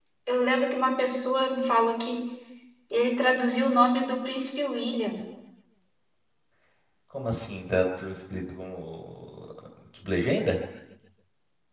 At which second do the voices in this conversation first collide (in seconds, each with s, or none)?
none